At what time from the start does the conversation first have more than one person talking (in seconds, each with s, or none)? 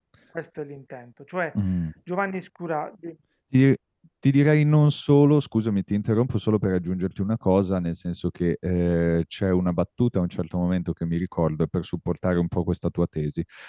none